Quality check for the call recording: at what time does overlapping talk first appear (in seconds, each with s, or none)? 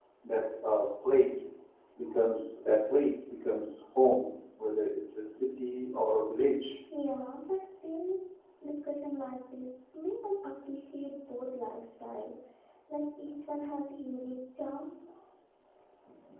none